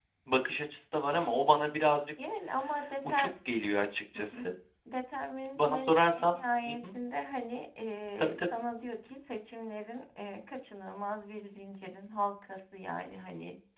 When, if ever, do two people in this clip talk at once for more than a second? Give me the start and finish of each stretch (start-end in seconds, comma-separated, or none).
5.5-6.7